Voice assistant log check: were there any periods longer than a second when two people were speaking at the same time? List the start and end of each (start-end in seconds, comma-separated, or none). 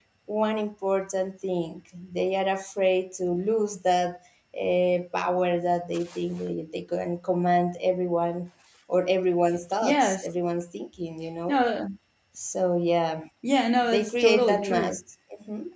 13.8-15.0